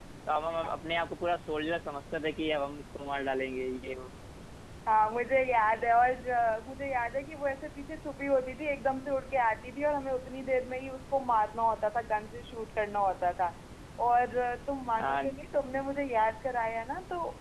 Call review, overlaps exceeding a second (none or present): none